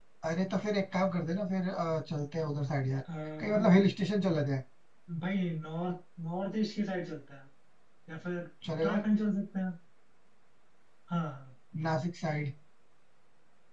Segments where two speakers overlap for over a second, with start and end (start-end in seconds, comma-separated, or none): none